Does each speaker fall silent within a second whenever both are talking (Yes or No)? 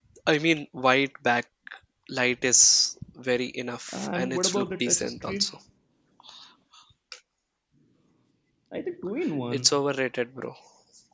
No